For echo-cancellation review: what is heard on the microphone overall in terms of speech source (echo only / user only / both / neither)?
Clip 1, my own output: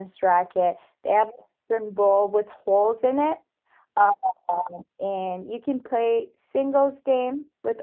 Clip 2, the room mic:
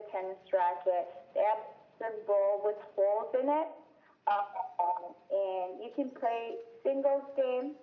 echo only